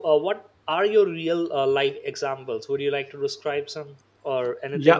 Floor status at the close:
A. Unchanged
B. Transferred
B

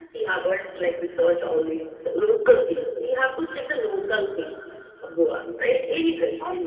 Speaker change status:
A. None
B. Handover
B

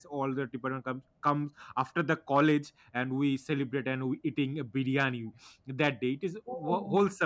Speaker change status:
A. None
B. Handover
A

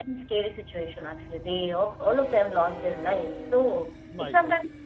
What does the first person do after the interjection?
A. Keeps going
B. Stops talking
A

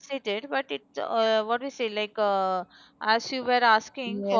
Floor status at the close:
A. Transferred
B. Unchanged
A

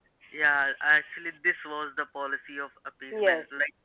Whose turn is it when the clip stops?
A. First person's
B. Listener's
A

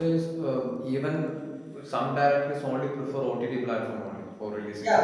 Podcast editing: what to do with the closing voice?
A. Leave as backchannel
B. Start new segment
B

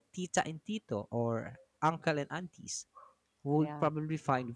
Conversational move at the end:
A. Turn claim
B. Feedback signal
B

